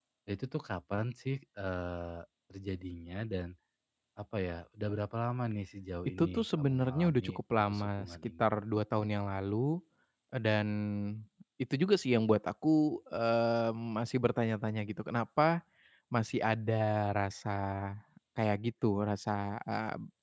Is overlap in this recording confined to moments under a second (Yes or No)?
No